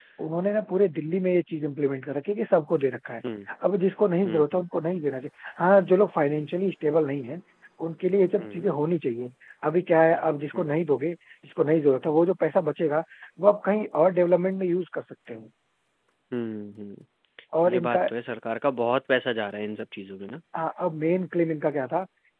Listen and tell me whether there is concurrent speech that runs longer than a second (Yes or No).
No